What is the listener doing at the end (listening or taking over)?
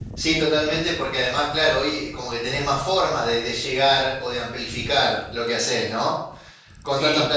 listening